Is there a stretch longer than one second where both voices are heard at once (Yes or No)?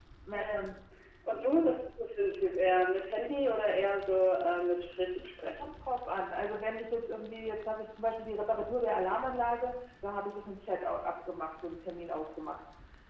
No